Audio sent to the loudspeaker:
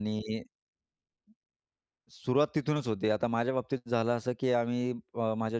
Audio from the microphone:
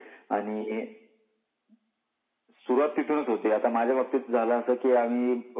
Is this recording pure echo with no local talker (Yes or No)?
Yes